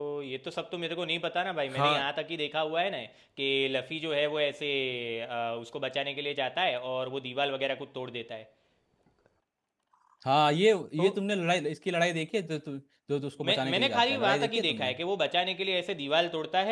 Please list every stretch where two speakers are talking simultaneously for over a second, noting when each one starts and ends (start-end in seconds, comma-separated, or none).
13.4-14.9